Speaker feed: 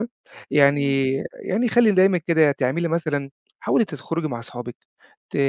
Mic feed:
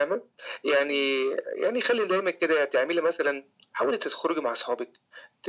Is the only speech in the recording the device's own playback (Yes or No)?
Yes